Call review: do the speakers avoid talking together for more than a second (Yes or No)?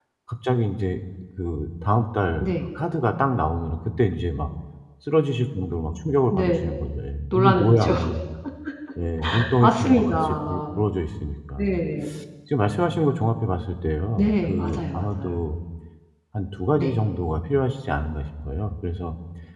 No